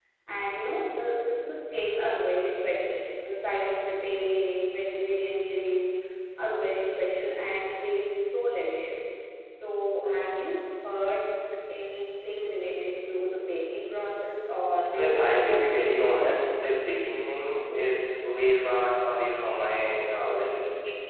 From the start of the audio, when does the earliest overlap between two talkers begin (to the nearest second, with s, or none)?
15 s